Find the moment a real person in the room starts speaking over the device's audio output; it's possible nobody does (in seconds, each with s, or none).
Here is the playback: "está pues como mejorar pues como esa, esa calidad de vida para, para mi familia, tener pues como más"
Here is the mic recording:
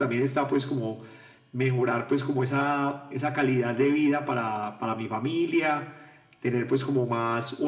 none